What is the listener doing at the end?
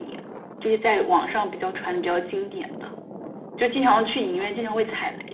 listening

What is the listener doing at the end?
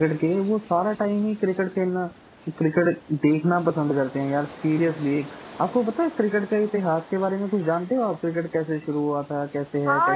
taking over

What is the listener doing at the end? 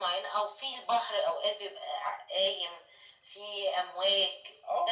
taking over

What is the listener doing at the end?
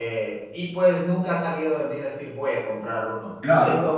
listening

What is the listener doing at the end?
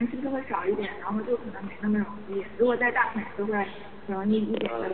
taking over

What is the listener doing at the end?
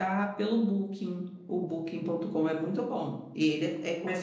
listening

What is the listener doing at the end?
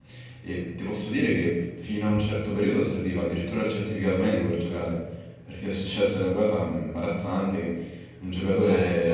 listening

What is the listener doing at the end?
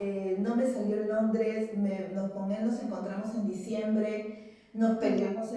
listening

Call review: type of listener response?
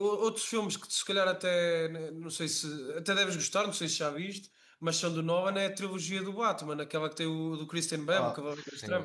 taking over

